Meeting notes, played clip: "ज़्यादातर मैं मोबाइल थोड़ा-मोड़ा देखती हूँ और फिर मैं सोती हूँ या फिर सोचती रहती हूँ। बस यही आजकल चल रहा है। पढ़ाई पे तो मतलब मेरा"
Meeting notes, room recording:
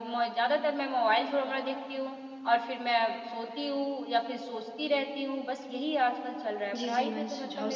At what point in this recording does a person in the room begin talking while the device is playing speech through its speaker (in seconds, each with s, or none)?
6.7 s